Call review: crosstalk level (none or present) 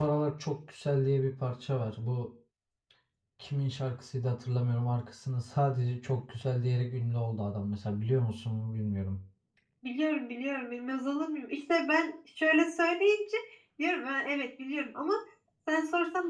none